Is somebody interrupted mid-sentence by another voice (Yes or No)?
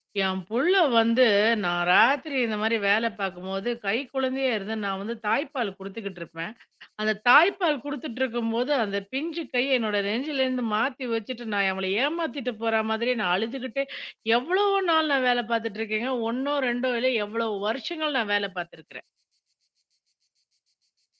No